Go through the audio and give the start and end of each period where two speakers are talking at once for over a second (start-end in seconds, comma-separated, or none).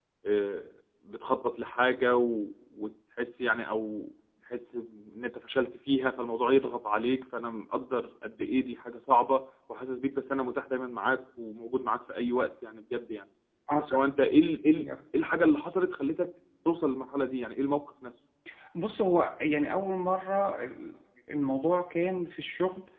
none